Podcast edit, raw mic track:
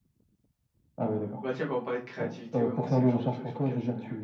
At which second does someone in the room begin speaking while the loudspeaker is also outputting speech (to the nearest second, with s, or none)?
1 s